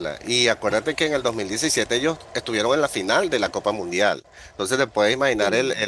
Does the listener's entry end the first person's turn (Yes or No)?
No